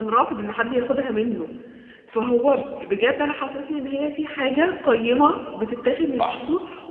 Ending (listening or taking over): listening